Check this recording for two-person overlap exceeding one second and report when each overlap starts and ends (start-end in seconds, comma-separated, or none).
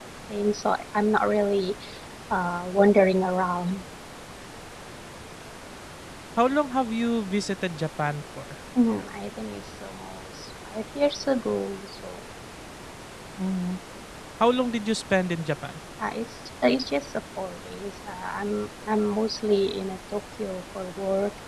none